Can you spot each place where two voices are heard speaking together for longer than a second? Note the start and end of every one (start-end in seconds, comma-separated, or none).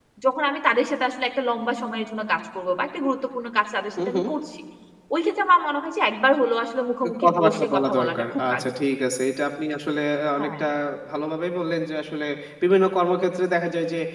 7.0-8.6